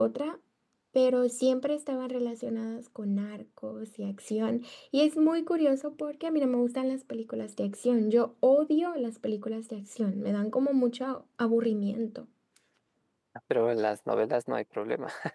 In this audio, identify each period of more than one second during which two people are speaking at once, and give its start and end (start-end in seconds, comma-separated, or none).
none